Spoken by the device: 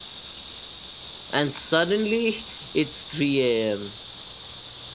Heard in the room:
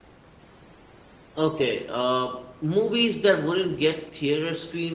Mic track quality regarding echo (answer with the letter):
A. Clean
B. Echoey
A